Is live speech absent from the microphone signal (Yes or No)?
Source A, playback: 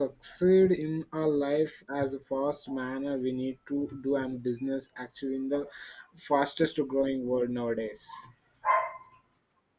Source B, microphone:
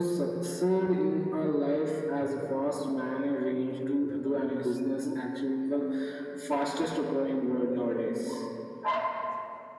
No